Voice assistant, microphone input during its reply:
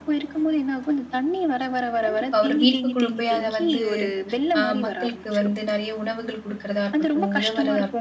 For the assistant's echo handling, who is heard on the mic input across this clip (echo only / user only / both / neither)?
both